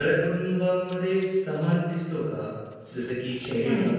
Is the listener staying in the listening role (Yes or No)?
Yes